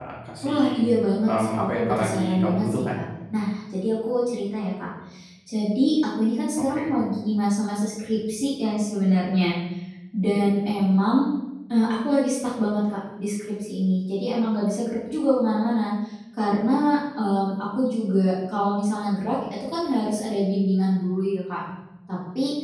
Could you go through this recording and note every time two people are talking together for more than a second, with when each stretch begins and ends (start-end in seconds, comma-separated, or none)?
1.2-3.0